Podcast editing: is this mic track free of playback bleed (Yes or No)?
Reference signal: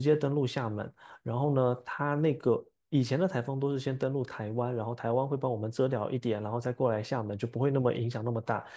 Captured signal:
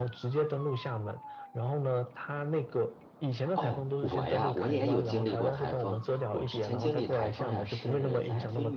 No